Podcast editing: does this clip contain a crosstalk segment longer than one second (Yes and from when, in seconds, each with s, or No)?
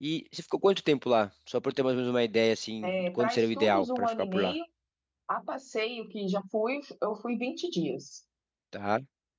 Yes, from 2.8 s